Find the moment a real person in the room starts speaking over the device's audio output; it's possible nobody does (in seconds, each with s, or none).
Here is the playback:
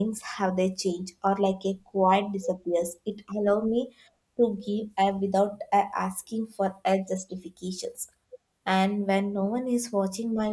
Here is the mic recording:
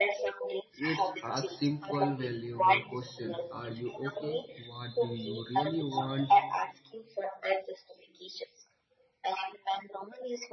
0.8 s